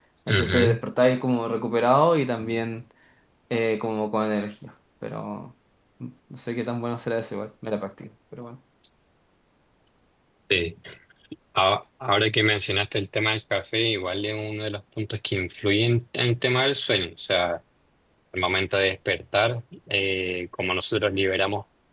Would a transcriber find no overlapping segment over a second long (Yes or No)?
Yes